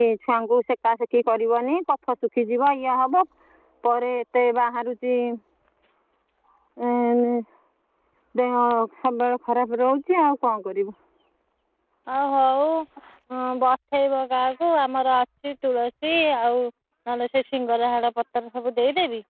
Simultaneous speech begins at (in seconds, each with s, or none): none